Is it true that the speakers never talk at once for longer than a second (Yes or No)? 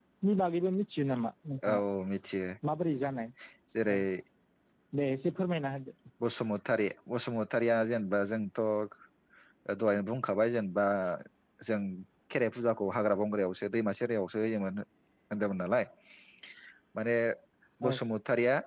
Yes